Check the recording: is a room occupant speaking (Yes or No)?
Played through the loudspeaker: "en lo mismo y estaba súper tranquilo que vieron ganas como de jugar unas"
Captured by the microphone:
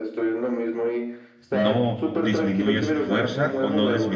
Yes